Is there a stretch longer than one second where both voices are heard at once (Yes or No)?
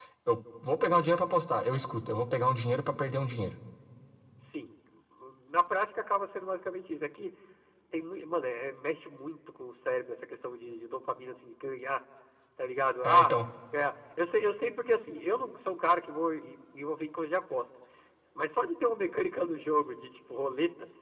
No